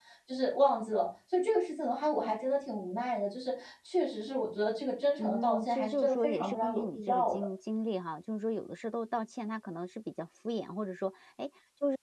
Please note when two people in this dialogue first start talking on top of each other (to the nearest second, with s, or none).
5 s